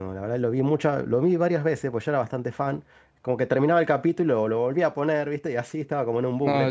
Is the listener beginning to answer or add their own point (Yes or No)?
Yes